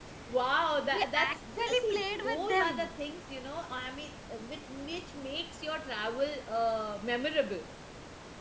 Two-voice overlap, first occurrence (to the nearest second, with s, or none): 1 s